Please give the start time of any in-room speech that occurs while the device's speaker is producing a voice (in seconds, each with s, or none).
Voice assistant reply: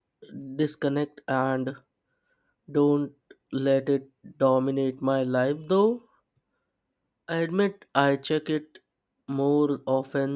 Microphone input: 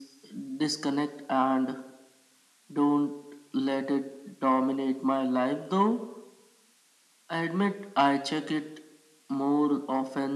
none